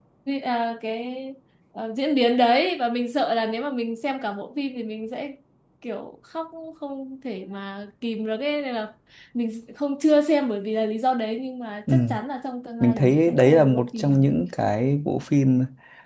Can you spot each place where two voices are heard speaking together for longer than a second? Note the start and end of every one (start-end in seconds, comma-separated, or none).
12.8-14.3